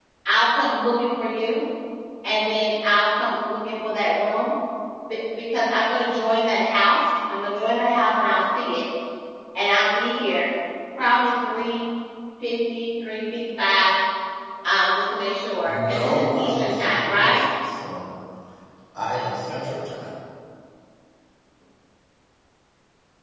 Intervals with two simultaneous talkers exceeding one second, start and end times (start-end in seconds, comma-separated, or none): 15.6-17.4